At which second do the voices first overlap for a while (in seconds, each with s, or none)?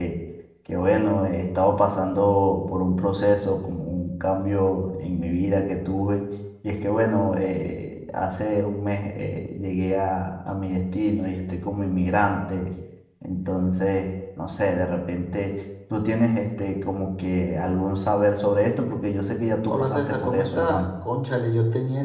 19.7 s